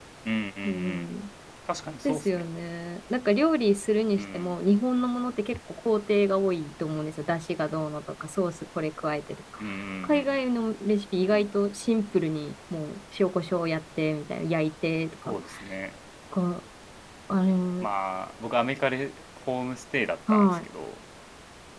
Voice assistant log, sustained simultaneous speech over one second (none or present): none